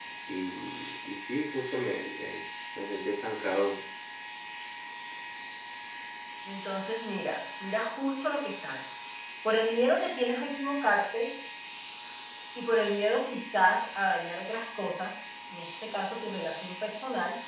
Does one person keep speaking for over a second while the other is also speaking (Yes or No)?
No